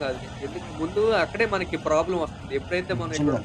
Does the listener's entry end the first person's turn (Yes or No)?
No